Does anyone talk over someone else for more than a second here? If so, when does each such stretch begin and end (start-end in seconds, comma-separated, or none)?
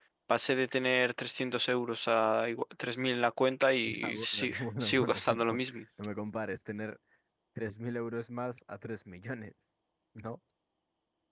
4.0-5.8